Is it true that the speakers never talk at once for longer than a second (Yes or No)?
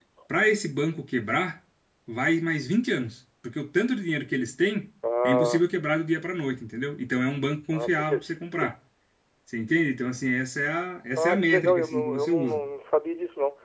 No